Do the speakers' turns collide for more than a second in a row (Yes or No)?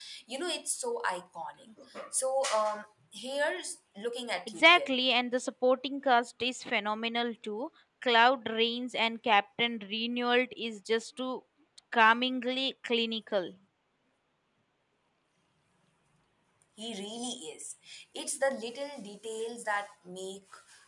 No